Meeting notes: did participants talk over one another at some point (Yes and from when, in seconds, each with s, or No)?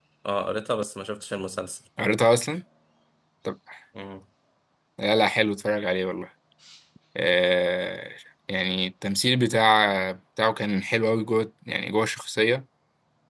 No